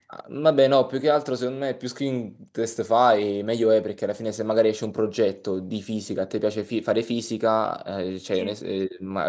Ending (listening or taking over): listening